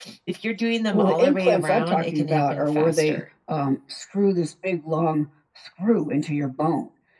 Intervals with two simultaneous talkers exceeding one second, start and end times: 0.9-3.2

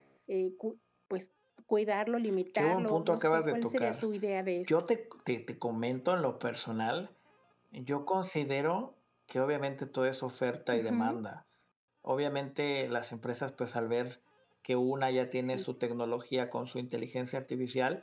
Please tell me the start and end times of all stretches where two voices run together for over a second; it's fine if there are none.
2.6-4.0

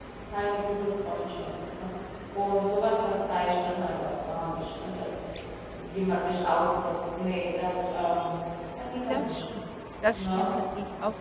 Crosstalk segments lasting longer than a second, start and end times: none

